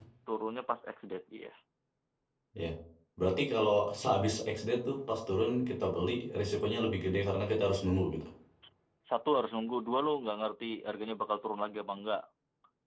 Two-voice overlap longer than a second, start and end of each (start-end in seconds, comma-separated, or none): none